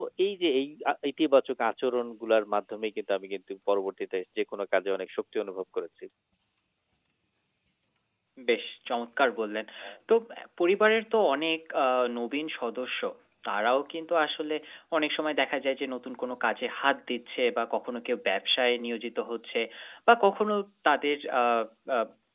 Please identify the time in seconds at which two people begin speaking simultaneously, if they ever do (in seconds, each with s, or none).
none